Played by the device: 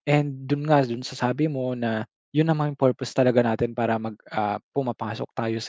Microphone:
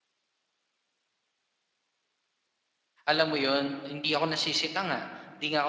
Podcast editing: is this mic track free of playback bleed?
Yes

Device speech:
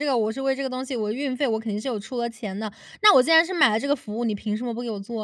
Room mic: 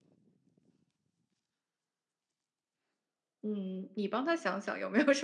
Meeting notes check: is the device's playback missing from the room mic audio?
Yes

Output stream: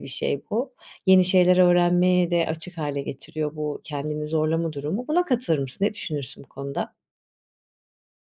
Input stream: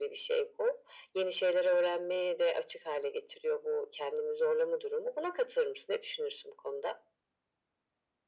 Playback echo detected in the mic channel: Yes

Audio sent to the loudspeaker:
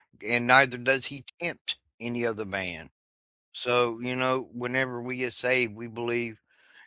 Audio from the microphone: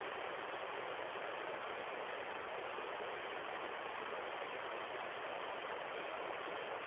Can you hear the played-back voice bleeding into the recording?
No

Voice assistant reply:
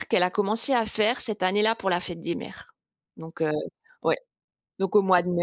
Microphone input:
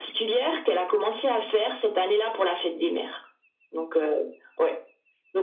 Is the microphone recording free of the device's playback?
No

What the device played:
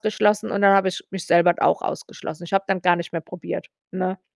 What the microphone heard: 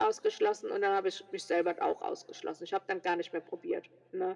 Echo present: Yes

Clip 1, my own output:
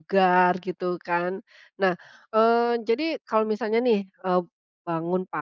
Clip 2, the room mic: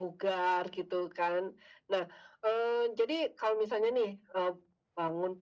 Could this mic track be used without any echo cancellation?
No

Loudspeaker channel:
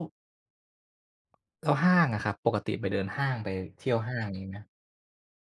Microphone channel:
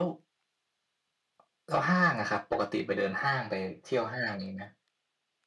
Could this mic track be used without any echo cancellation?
No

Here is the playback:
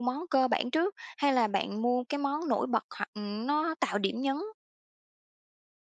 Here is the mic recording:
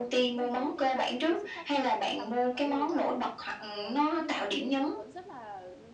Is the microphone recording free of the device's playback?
No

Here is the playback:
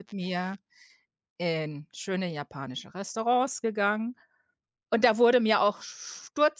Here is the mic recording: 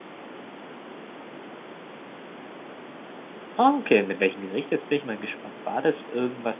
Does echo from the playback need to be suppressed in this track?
No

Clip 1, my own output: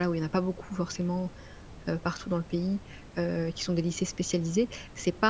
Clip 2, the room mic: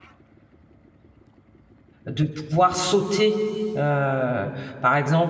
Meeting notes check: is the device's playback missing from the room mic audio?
Yes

